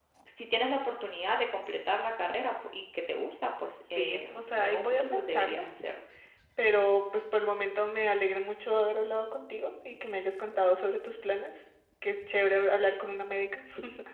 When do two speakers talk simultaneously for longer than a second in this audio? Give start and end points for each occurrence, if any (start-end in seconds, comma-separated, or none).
3.9-5.6